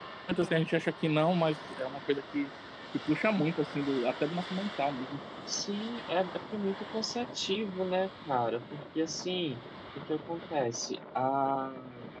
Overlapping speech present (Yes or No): No